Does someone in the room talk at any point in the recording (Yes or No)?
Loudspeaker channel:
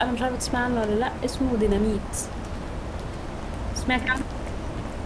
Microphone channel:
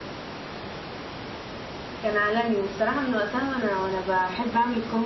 Yes